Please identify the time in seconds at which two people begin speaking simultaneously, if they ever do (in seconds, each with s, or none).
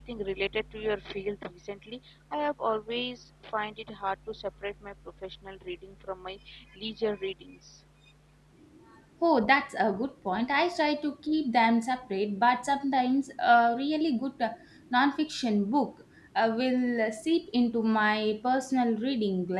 none